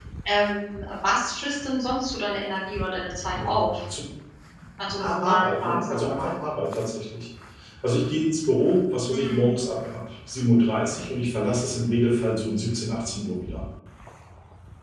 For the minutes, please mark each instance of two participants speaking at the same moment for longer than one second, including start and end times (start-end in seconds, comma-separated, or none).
5.0-6.3